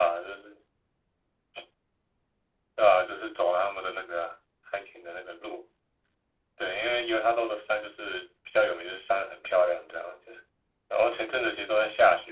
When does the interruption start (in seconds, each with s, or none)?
none